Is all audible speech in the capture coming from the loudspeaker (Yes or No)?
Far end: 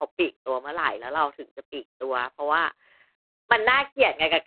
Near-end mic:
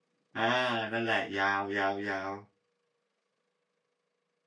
No